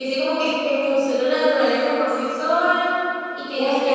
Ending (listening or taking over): taking over